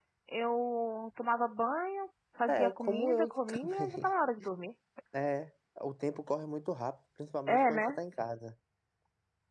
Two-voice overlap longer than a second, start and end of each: 2.5-4.1

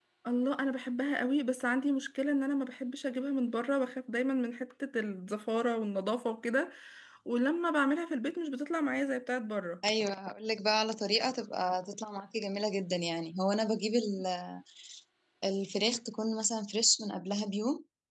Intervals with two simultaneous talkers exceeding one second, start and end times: none

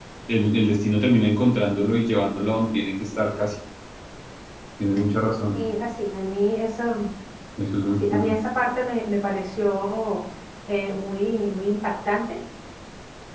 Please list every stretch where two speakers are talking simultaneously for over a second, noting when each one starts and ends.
none

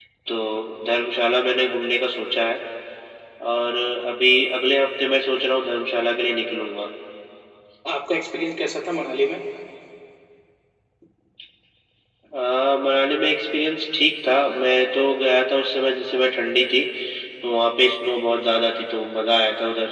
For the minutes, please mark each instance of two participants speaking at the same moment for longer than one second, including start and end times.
none

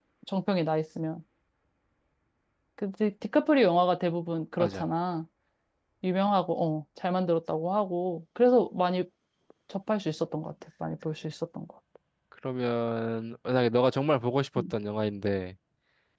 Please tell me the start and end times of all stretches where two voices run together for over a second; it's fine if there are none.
none

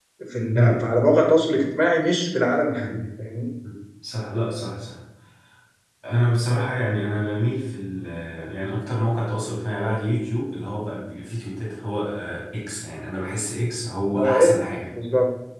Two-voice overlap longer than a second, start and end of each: none

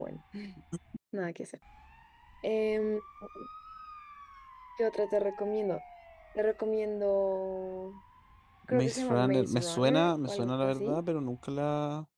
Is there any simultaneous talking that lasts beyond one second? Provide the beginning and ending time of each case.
8.7-11.0

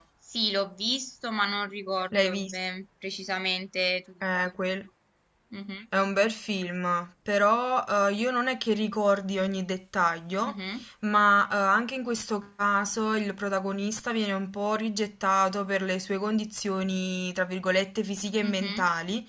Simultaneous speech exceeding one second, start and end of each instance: none

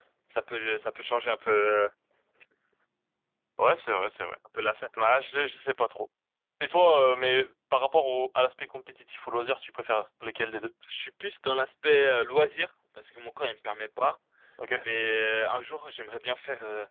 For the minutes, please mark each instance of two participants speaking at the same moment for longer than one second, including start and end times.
none

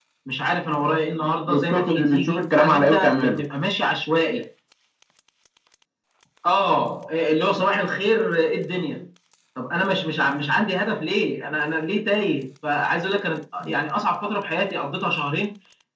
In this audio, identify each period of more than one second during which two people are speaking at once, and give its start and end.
1.4-3.4

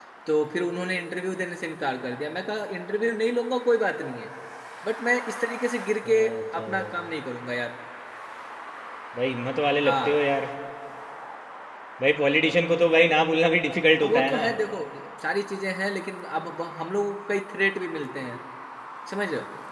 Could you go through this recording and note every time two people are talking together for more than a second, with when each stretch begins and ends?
none

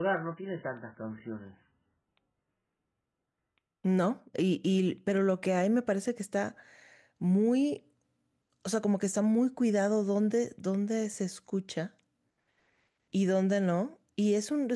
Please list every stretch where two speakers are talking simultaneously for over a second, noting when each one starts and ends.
none

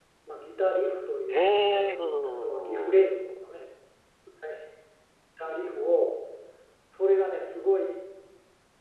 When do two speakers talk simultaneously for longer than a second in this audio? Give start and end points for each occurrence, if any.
1.3-3.1

